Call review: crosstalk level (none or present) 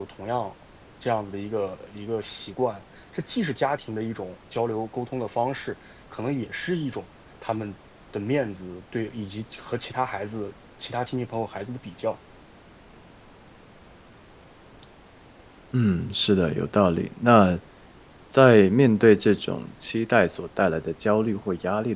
none